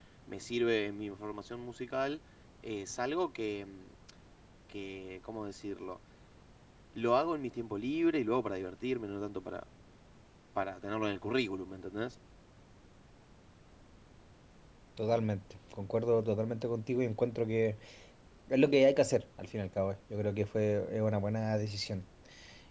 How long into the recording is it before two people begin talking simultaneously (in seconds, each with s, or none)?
none